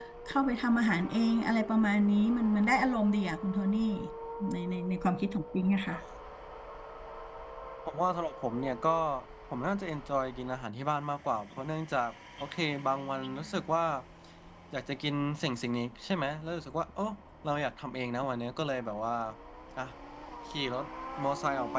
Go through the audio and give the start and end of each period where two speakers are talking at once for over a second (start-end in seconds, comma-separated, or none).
none